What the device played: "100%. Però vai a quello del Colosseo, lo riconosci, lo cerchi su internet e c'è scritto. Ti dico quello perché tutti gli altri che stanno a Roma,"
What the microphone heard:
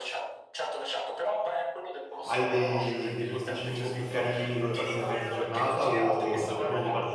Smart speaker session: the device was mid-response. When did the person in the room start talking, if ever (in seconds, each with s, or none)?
2.2 s